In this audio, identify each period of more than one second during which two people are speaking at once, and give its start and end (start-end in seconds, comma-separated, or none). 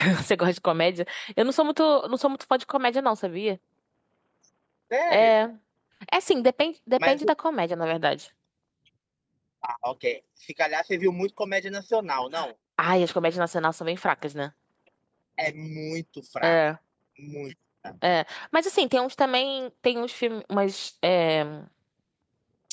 none